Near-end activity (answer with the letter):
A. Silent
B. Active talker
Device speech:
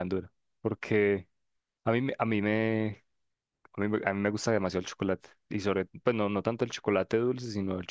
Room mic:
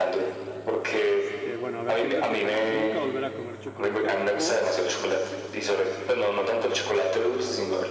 B